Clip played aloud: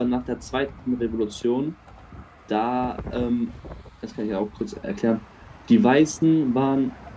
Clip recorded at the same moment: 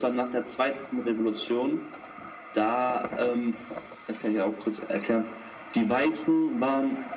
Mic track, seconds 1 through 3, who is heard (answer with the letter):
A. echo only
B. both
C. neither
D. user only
A